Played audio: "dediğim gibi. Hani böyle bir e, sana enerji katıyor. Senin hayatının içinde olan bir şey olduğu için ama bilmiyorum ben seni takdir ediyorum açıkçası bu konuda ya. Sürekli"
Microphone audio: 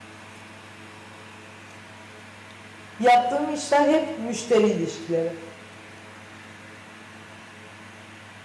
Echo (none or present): none